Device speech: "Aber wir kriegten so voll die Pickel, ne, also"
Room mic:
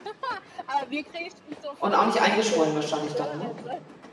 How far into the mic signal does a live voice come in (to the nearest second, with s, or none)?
2 s